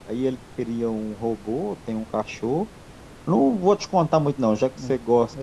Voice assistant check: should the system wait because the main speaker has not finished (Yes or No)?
Yes